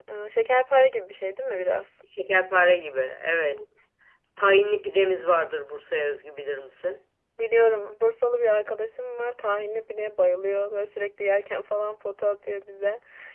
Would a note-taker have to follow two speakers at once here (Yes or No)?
No